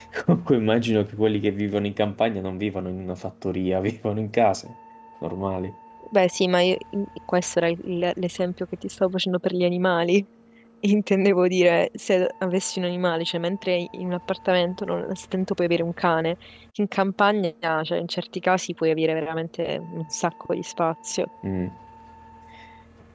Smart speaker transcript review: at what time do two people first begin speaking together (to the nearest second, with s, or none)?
none